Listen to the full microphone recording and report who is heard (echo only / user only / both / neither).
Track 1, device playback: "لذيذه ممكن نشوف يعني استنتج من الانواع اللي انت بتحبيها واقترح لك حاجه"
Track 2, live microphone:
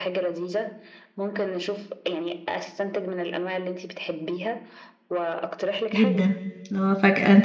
both